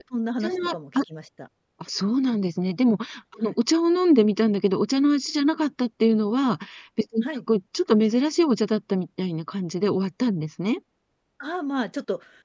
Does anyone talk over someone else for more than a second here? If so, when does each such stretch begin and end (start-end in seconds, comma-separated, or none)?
none